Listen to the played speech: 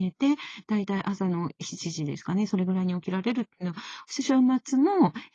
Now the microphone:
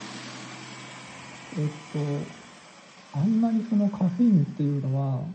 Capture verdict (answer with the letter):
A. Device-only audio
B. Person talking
B